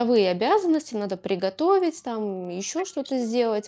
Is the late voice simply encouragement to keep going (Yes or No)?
Yes